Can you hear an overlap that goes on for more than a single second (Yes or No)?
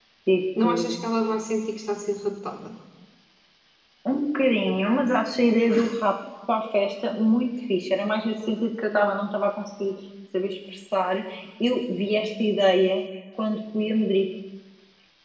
No